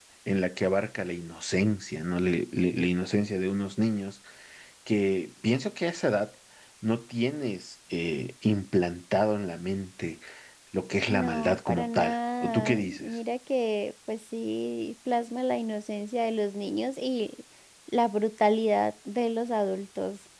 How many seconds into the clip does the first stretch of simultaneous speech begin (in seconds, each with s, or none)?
11.1 s